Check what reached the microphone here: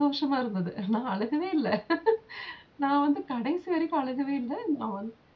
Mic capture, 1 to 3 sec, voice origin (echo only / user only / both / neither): user only